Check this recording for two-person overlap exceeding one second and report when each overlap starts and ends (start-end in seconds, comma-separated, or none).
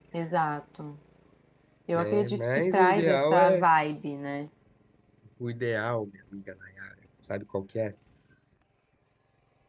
2.0-3.6